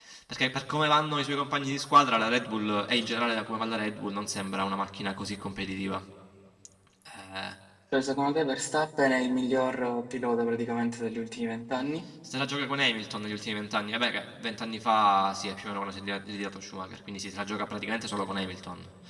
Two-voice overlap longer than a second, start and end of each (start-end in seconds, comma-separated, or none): none